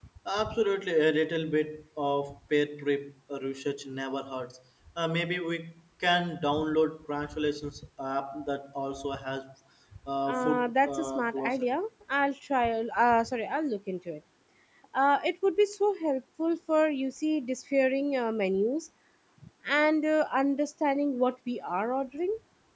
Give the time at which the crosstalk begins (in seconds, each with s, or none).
10.3 s